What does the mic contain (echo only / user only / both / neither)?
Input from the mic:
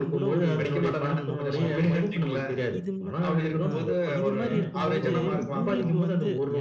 both